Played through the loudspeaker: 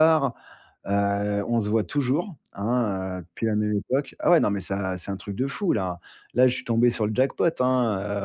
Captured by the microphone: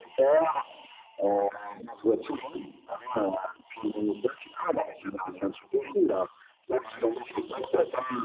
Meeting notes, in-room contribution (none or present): present